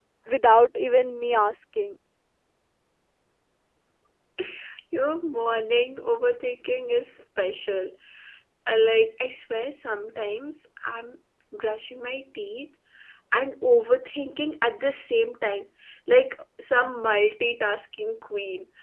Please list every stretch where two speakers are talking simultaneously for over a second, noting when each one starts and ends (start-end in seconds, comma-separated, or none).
none